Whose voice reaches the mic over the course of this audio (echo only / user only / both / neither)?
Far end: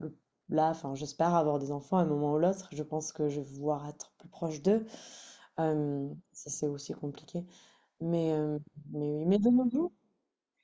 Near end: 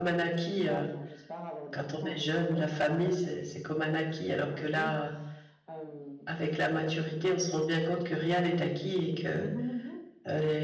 both